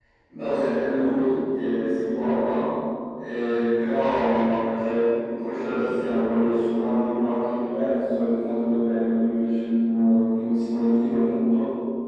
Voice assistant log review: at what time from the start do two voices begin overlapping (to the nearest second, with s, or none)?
none